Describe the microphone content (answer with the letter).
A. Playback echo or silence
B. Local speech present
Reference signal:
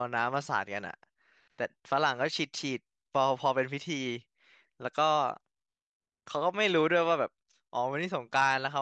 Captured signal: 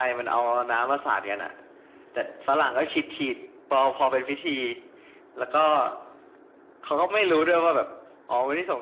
A